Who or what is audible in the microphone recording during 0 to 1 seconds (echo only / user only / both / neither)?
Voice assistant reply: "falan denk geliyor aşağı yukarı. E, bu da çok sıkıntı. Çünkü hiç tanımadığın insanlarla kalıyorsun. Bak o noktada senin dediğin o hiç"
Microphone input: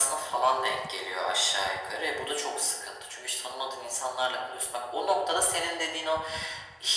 echo only